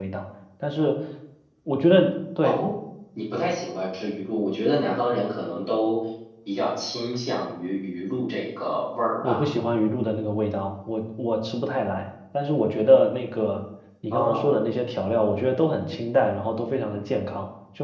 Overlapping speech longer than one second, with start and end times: none

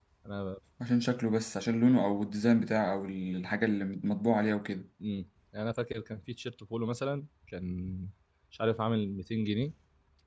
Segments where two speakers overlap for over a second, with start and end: none

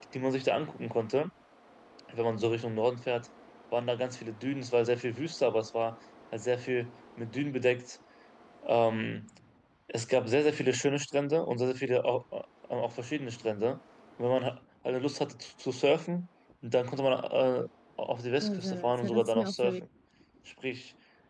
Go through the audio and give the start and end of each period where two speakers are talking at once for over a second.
18.4-19.8

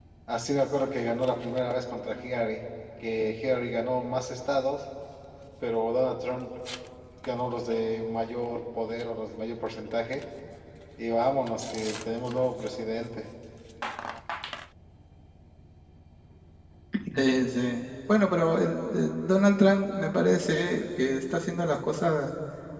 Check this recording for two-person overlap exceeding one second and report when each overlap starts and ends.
none

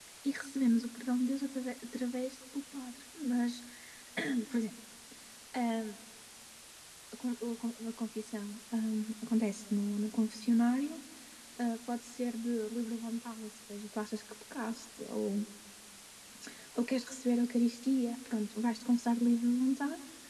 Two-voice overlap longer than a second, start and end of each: none

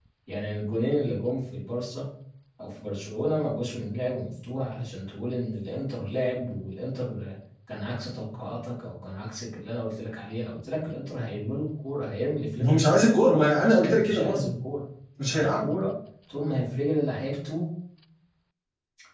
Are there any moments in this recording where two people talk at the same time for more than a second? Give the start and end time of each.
12.7-14.5

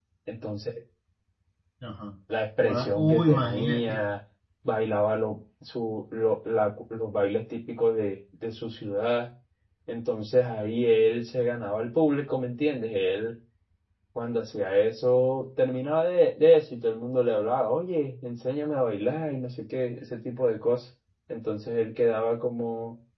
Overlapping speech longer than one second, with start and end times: 2.6-4.0

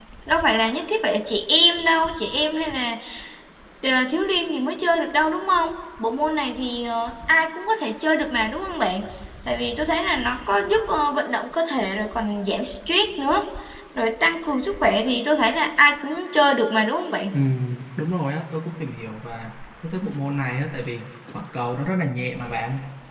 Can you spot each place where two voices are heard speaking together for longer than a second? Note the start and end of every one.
none

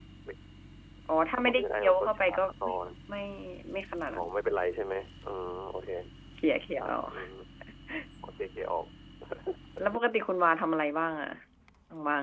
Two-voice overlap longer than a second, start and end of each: 1.4-2.7

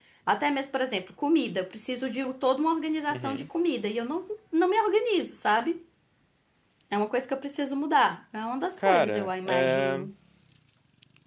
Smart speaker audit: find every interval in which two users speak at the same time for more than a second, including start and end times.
8.8-10.1

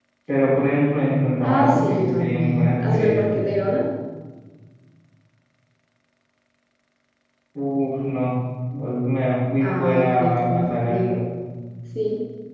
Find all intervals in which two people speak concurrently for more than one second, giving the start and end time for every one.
1.4-3.3, 9.6-11.2

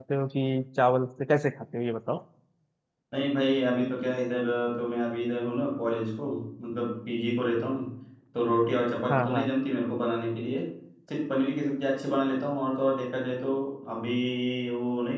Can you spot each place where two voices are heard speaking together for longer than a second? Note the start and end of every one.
none

